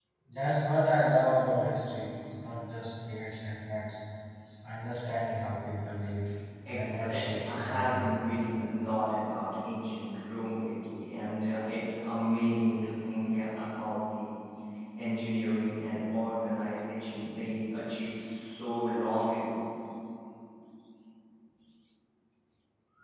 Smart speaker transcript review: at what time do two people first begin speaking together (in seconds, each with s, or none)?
6.7 s